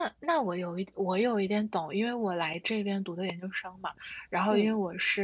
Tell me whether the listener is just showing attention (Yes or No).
Yes